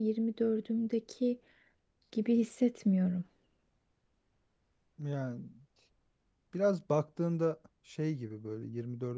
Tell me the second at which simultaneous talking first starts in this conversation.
none

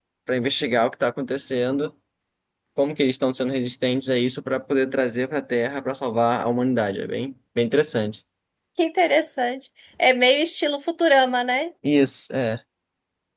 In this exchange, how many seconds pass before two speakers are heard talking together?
none

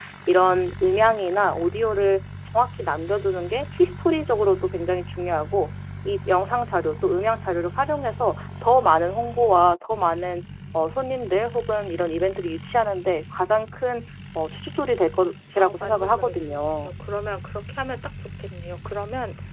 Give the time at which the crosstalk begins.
15.6 s

